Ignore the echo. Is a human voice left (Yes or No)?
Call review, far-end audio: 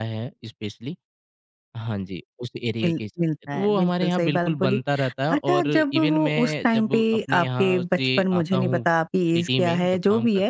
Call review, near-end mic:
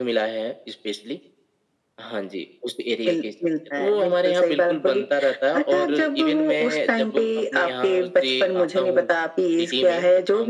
No